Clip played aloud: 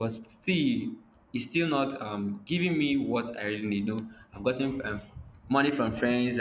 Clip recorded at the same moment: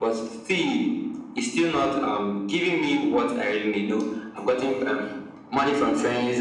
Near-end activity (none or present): none